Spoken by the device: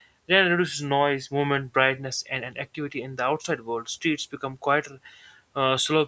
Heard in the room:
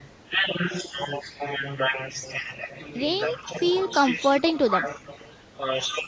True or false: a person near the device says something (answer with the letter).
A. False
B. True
B